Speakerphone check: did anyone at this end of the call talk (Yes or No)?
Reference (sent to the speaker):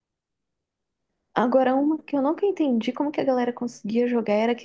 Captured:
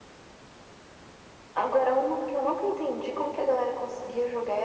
No